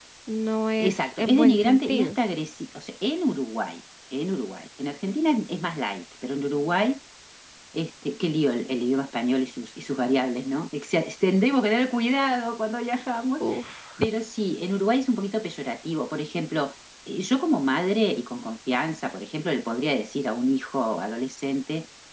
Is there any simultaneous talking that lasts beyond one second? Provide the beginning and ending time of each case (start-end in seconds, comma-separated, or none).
0.8-2.2